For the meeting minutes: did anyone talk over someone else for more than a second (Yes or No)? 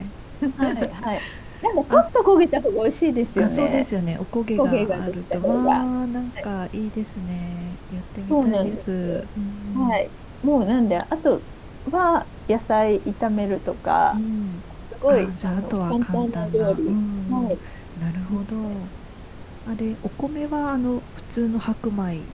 Yes